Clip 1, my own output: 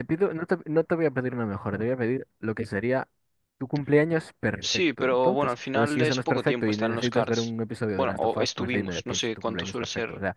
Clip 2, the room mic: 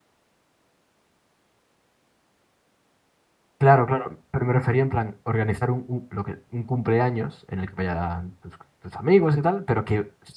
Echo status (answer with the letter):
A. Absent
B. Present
A